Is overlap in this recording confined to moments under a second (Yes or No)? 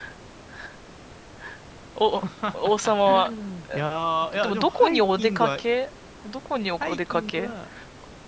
No